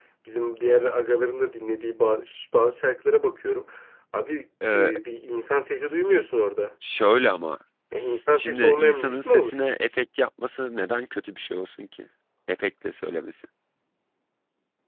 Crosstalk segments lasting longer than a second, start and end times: 8.0-9.6

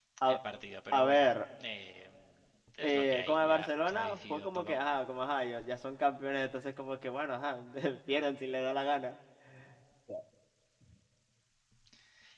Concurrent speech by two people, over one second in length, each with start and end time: 2.8-4.8

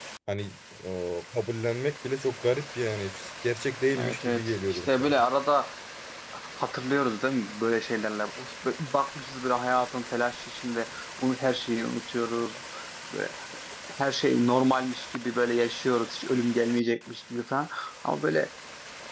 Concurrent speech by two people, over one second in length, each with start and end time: 3.9-5.2

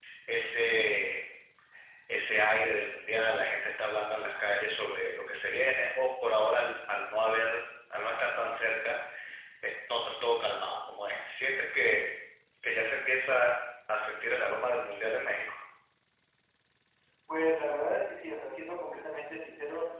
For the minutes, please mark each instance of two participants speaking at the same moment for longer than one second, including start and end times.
none

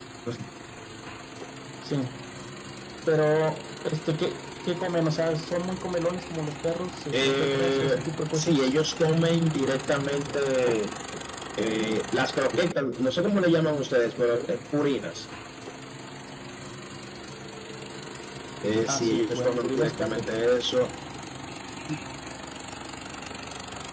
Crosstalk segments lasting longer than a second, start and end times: 7.1-8.7, 18.9-20.3

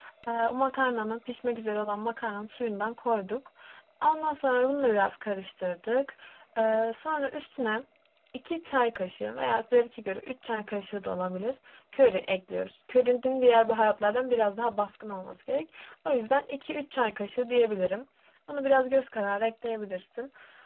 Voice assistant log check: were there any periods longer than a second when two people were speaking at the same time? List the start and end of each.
none

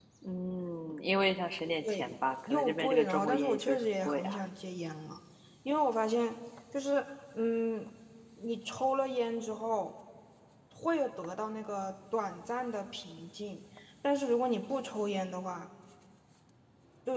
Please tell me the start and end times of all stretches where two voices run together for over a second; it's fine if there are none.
2.5-4.4

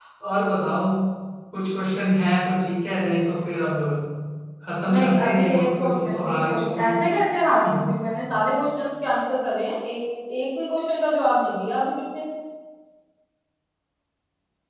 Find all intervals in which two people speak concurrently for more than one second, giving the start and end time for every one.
4.9-7.0

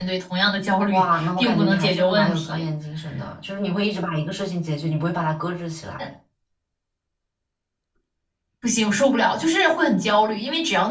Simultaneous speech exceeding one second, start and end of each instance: 0.9-2.6

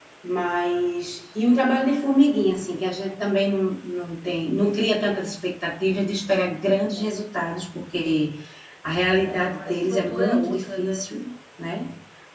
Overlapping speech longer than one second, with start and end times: 9.3-11.0

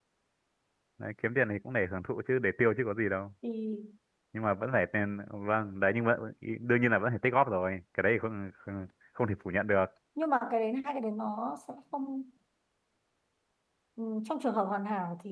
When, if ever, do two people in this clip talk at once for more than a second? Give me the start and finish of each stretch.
none

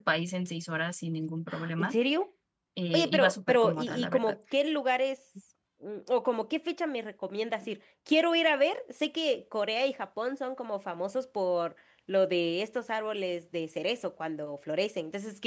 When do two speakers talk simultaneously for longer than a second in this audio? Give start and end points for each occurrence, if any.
2.9-4.3

